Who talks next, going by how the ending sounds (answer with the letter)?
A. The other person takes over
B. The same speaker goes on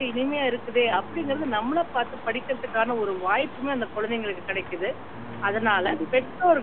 B